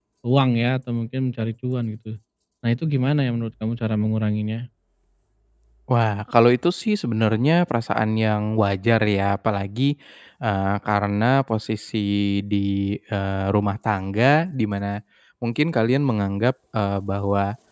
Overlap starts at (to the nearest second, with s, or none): none